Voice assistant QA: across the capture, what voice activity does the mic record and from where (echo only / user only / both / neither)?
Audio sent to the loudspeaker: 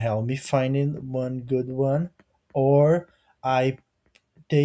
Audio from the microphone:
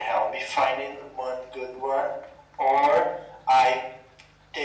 echo only